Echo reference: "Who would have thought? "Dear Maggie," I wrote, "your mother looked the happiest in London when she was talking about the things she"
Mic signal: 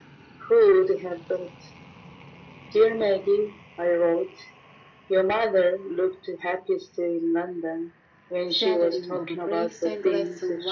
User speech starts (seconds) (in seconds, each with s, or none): 8.4 s